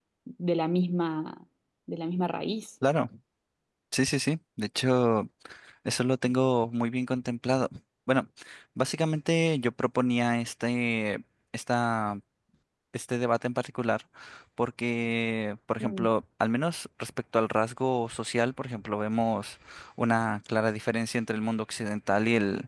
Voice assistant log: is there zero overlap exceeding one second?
Yes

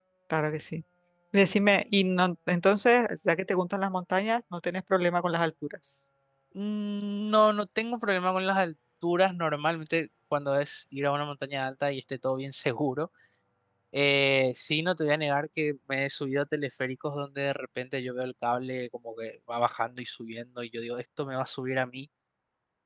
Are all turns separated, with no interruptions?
Yes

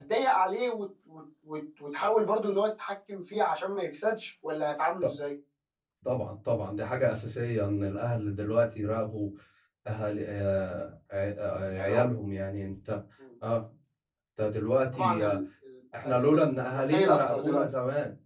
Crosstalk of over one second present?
Yes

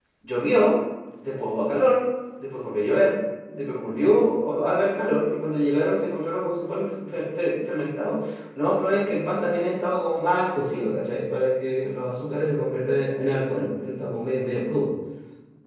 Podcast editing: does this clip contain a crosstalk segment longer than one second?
No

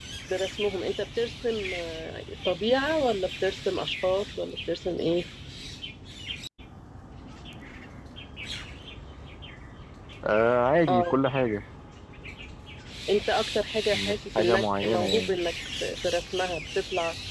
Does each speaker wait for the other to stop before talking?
No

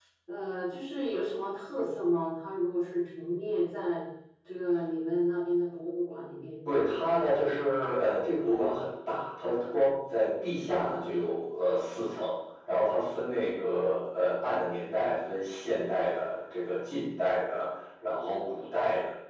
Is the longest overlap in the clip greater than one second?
No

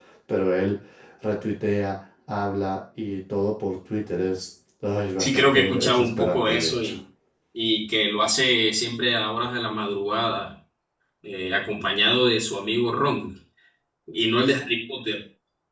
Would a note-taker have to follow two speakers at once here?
Yes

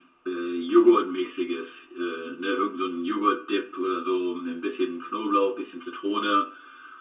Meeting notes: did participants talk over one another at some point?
No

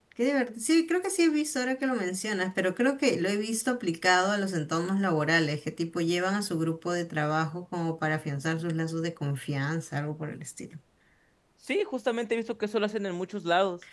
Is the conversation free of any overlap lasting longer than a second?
Yes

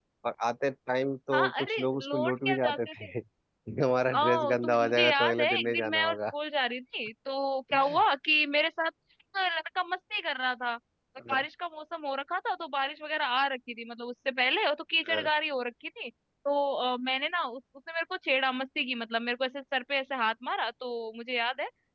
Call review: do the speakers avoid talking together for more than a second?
No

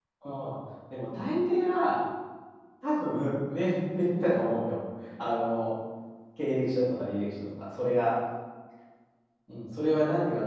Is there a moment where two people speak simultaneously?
No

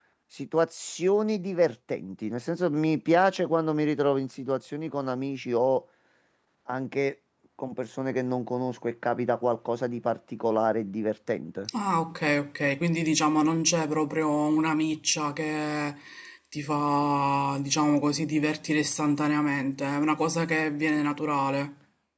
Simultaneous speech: No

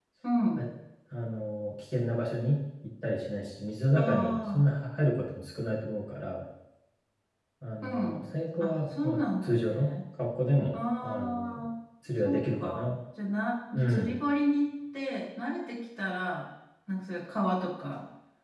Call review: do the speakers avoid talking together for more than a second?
No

